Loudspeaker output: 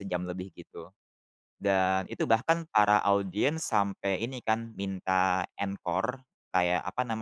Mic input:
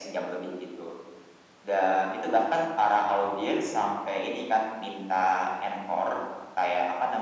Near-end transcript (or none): none